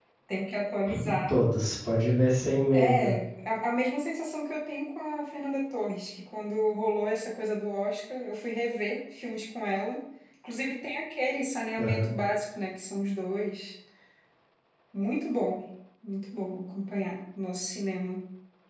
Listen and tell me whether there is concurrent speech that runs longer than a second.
No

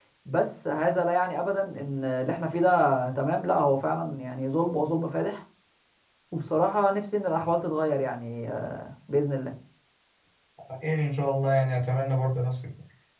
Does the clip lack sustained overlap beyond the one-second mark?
Yes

